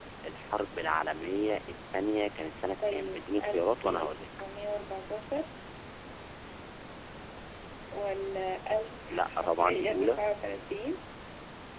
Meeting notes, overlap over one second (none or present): present